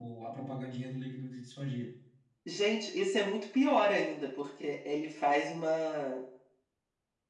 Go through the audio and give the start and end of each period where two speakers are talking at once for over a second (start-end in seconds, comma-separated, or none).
none